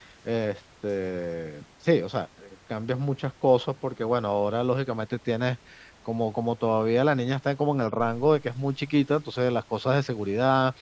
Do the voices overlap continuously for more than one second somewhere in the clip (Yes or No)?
No